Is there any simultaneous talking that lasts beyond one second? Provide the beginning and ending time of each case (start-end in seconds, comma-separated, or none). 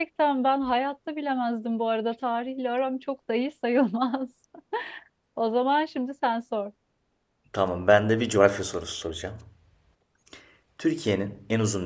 none